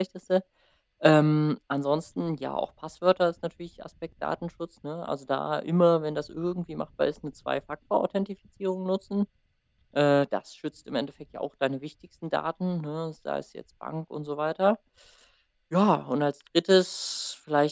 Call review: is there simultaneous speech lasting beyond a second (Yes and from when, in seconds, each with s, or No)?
No